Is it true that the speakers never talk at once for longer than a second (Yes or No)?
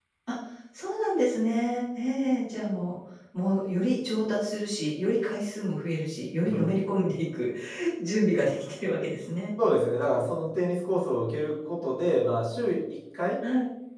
Yes